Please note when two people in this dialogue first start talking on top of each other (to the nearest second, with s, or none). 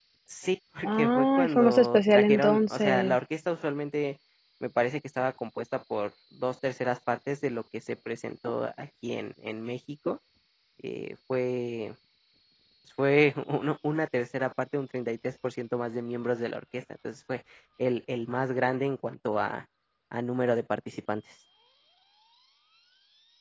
1 s